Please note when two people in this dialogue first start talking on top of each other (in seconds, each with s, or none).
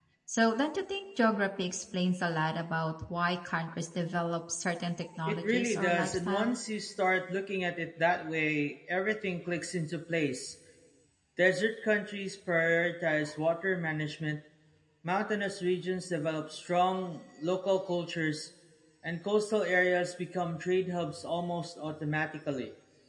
5.3 s